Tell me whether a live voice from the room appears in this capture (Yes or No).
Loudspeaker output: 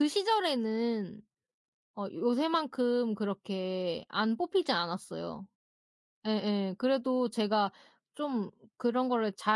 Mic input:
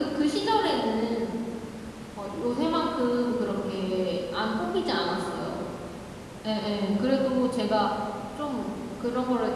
No